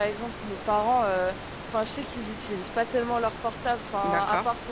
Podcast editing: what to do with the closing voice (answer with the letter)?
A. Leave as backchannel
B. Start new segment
A